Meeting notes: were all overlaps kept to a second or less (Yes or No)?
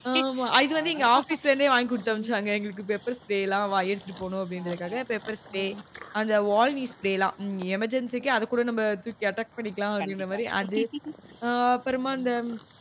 Yes